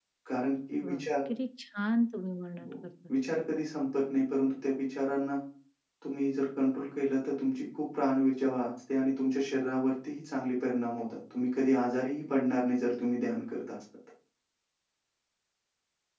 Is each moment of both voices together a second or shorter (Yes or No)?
Yes